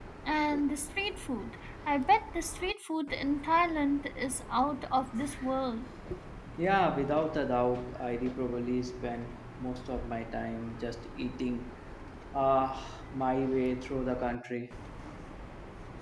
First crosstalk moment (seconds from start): none

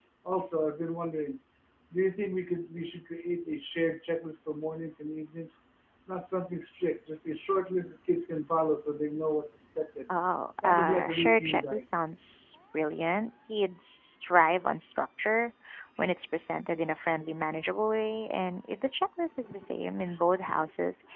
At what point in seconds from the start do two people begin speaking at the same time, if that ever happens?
10.6 s

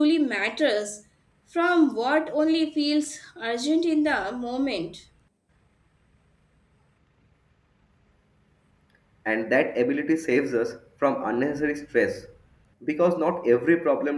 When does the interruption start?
none

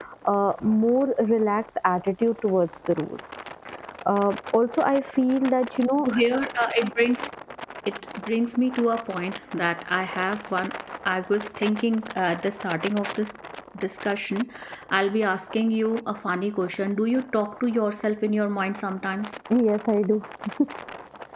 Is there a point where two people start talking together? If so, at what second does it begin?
none

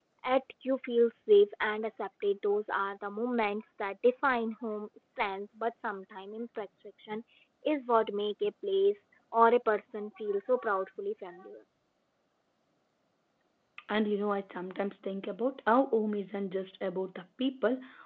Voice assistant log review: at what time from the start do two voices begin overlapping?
none

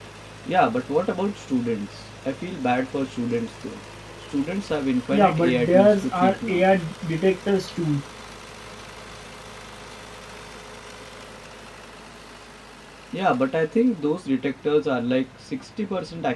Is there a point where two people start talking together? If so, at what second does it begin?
5.1 s

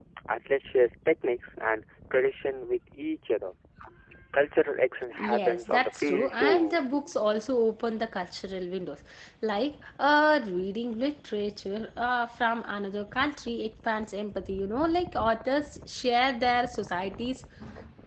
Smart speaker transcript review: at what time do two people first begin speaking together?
5.2 s

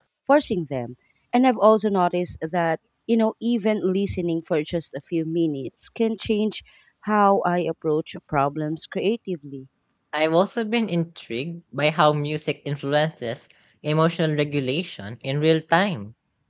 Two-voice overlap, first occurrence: none

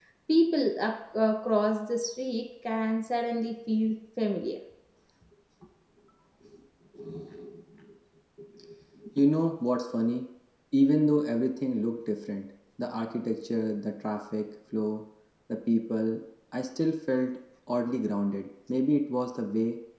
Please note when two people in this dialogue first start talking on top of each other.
none

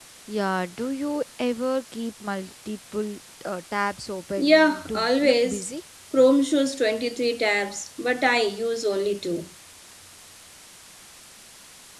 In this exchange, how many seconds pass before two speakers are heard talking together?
4.4 s

